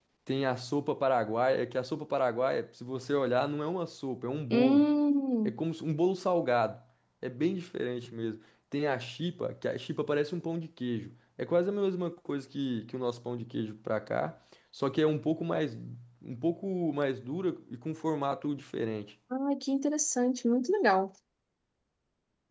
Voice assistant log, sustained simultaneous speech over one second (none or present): none